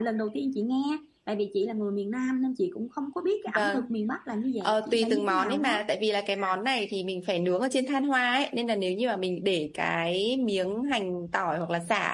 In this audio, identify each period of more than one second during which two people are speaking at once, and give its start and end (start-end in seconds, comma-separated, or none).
4.6-5.8